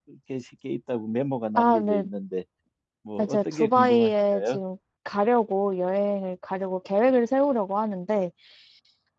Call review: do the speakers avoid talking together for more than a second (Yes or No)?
No